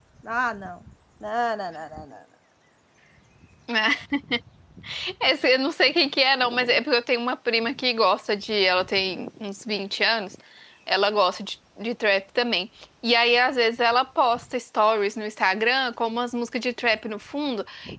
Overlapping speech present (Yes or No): No